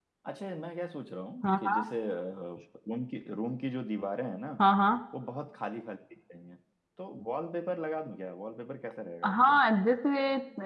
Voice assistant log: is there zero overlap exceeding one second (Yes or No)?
Yes